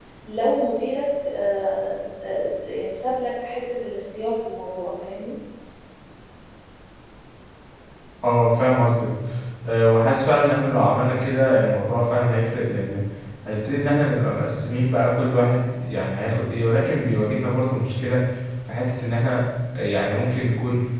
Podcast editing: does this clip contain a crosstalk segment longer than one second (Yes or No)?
No